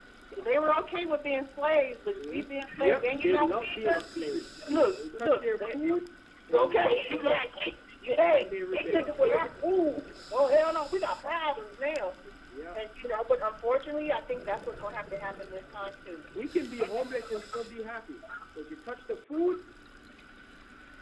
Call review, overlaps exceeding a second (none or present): present